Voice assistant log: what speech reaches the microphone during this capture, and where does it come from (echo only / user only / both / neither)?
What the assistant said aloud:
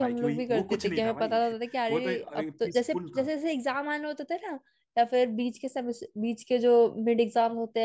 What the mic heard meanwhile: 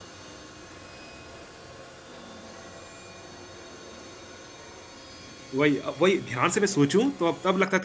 user only